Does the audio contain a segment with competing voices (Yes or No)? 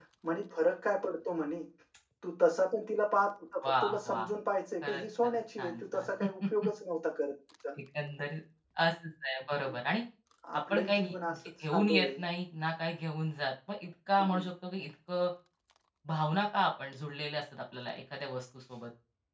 Yes